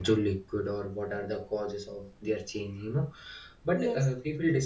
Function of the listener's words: listening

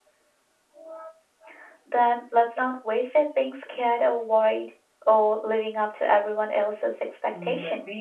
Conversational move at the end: taking over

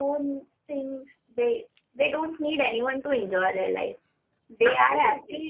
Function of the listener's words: listening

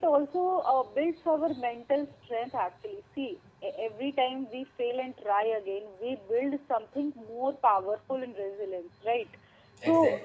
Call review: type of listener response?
listening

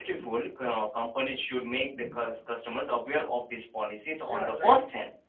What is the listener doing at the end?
taking over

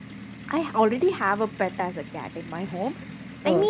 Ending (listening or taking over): listening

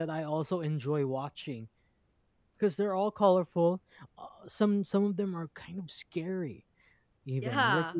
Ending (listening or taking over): listening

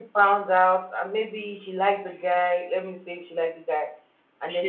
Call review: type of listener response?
listening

